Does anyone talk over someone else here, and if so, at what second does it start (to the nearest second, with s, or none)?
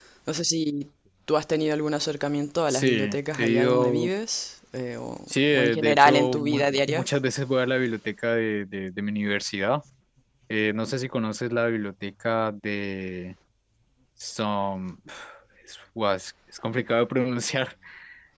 3 s